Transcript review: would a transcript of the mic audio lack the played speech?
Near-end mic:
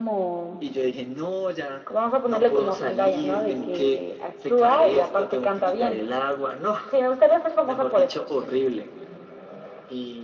No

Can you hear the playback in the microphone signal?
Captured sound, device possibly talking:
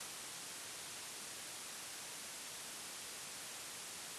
No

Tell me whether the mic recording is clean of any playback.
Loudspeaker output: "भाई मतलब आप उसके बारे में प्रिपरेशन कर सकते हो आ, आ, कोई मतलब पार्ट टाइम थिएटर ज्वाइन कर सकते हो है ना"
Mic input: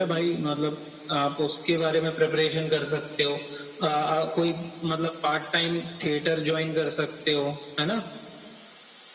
No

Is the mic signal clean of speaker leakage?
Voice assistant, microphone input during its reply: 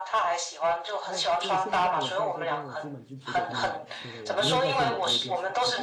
No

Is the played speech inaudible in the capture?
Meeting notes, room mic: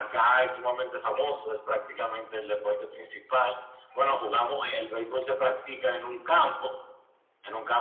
No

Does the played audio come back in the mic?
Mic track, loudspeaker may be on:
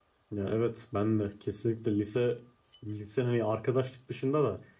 No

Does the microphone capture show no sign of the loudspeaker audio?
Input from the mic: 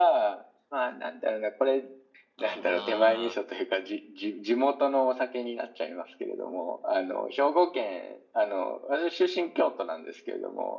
No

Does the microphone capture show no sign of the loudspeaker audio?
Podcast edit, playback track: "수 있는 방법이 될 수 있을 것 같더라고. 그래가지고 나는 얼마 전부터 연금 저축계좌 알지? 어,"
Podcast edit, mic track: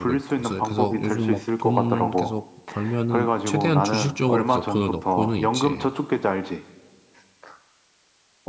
No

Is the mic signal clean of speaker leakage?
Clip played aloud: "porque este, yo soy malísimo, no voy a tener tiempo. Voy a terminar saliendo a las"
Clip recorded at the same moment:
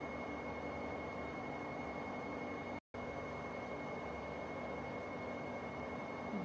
Yes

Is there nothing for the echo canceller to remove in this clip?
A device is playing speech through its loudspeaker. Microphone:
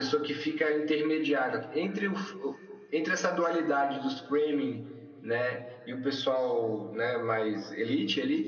No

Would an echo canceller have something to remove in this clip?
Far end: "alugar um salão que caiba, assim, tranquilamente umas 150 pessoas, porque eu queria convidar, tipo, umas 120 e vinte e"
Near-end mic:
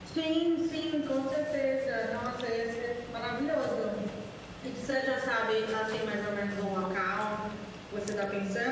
No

